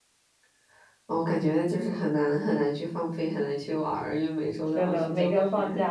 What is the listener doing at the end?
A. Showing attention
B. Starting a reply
B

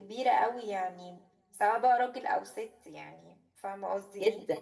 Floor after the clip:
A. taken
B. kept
A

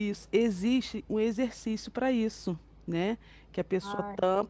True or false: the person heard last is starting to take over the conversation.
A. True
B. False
B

